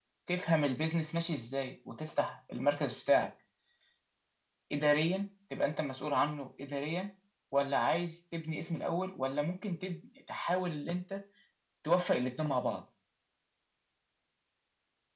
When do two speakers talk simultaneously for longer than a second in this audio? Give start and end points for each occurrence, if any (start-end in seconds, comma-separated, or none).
none